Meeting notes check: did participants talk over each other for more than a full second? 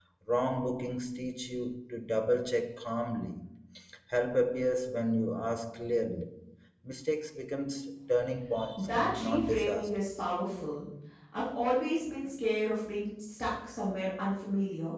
Yes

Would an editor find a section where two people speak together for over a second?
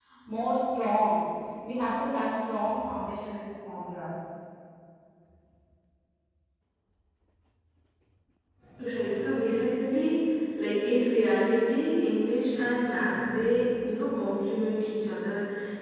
No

